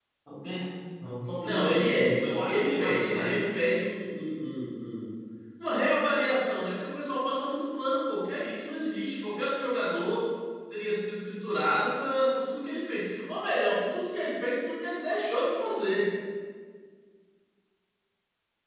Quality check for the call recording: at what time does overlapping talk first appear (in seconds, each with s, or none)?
1.4 s